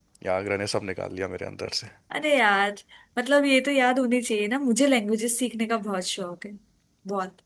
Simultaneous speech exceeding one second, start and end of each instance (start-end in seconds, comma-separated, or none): none